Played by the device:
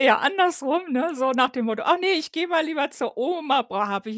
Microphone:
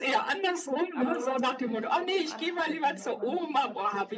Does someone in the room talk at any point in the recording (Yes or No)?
Yes